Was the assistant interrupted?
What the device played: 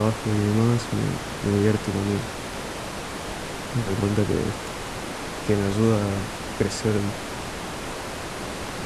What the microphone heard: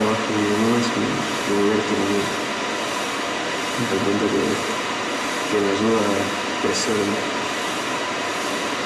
No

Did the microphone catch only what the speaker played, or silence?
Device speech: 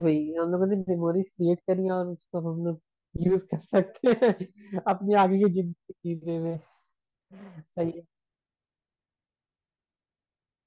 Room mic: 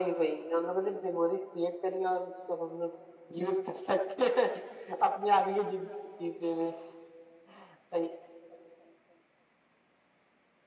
Yes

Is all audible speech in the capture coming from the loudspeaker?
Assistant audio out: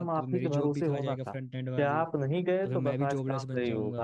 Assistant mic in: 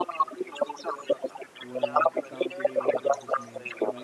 No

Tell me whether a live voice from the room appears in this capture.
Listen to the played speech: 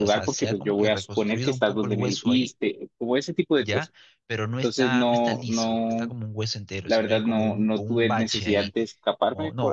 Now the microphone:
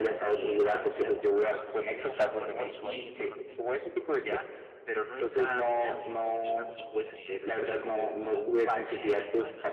Yes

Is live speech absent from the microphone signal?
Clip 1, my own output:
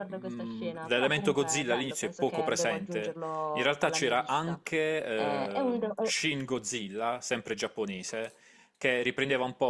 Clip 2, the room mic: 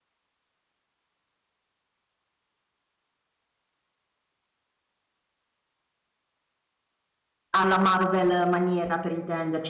No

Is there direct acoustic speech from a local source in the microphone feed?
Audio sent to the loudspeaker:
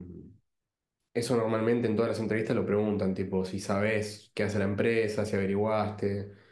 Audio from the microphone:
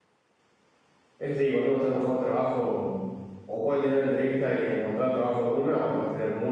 Yes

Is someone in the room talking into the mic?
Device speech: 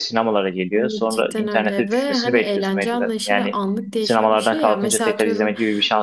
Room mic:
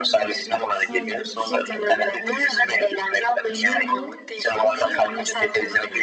Yes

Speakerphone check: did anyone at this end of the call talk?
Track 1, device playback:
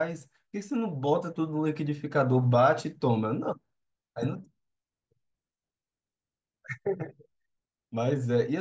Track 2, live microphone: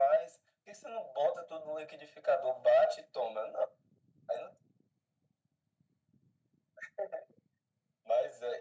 No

